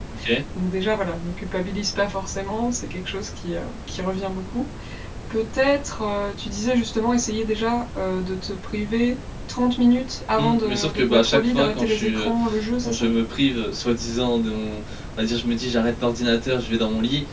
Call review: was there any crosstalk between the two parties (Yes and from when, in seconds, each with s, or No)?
Yes, from 10.4 s